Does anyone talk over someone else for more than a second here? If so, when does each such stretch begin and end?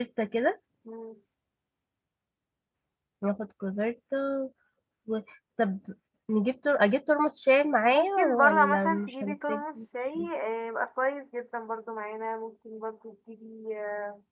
7.8-9.6

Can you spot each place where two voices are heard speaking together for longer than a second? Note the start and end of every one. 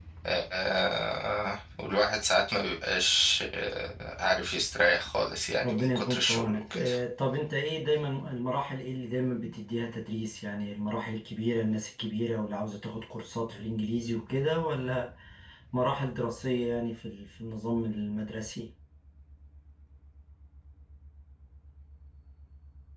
5.6-6.9

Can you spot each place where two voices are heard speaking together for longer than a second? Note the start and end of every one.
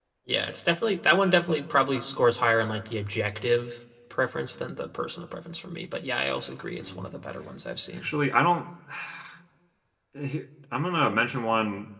none

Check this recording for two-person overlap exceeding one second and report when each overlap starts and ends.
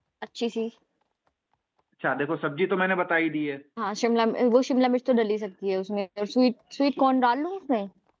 none

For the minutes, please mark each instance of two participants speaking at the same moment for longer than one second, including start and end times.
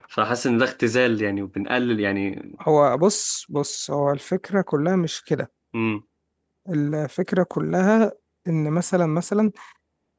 none

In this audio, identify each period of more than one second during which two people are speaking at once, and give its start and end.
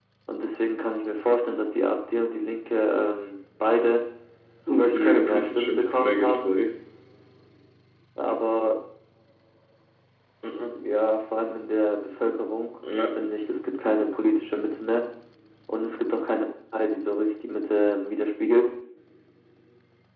4.7-6.5

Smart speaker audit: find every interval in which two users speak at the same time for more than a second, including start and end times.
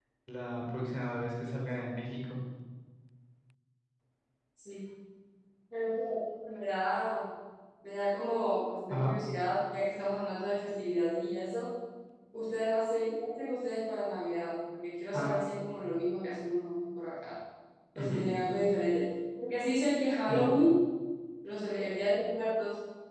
none

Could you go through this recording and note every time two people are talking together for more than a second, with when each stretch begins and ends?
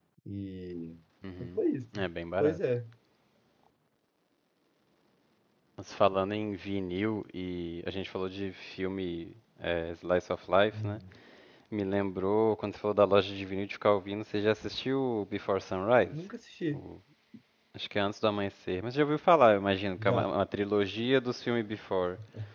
none

